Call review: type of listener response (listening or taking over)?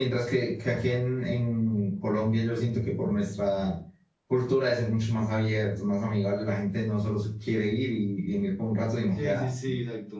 taking over